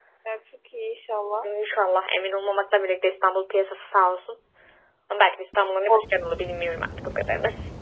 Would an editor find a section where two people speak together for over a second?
No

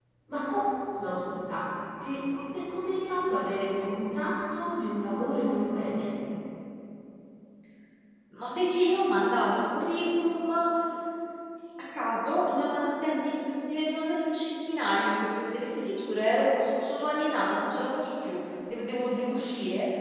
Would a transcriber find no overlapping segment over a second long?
Yes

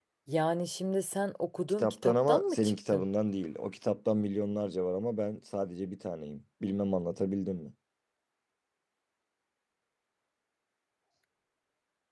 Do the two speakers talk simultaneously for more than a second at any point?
Yes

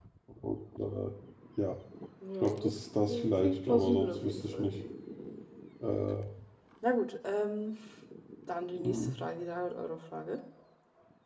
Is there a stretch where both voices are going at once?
Yes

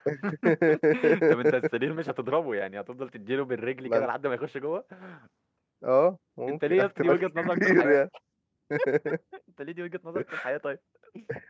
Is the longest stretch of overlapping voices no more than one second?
No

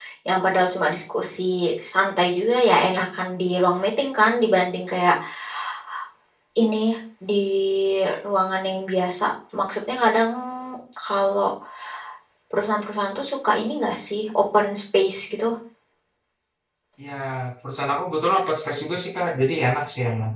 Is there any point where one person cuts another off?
No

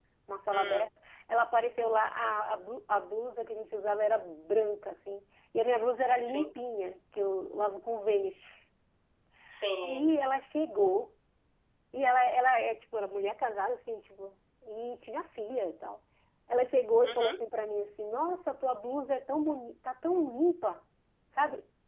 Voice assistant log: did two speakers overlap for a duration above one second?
No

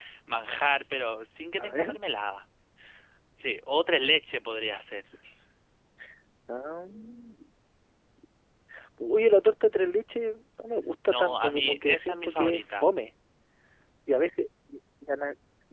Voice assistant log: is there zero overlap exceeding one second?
No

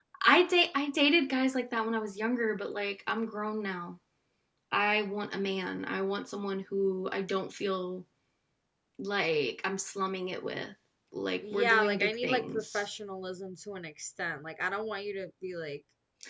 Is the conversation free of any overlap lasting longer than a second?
No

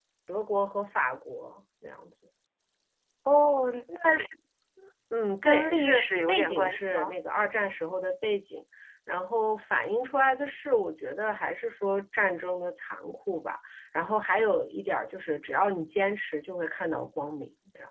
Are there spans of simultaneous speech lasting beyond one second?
Yes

